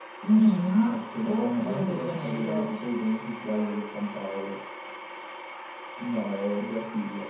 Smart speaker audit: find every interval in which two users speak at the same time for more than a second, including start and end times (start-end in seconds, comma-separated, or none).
0.8-2.7